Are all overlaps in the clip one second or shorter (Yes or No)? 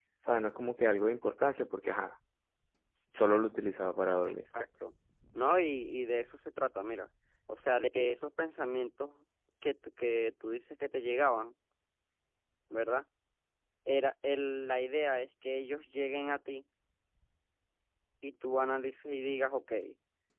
Yes